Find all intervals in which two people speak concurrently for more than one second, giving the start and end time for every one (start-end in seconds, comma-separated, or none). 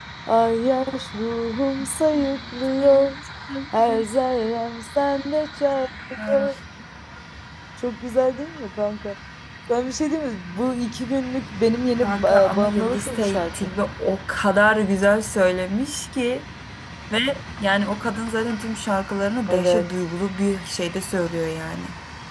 12.0-13.7